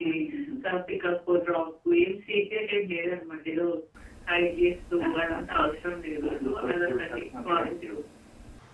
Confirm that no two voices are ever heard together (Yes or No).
No